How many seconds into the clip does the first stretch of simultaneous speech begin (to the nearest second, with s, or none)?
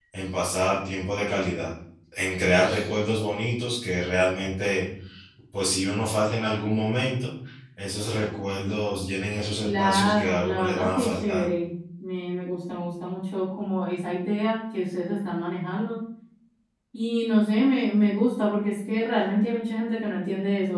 10 s